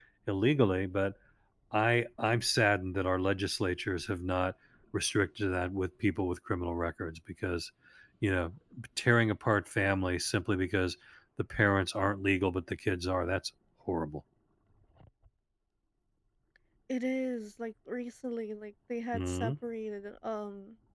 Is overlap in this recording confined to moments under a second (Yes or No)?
Yes